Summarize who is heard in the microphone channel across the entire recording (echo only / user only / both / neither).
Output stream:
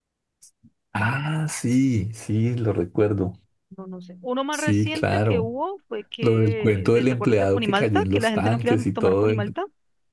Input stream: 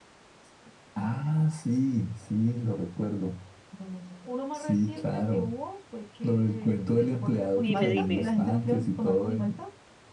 both